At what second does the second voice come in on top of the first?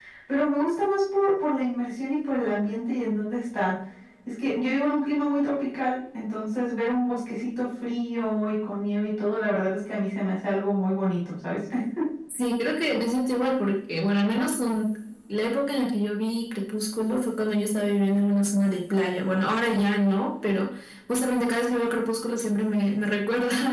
none

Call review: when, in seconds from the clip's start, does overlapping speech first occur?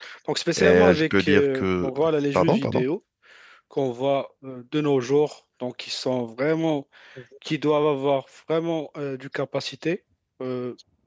0.6 s

